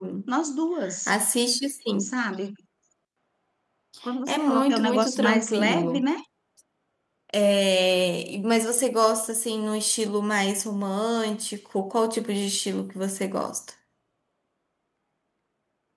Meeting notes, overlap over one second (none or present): present